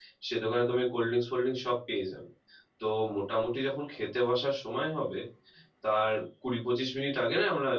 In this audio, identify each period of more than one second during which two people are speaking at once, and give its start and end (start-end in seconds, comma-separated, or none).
none